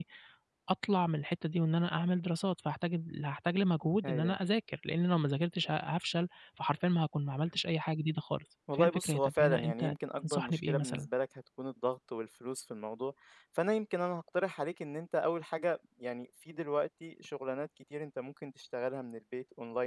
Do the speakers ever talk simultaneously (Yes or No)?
Yes